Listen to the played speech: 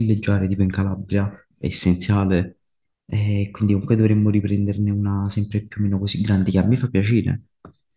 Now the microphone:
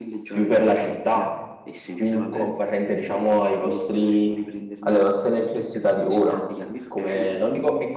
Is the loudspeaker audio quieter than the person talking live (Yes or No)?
Yes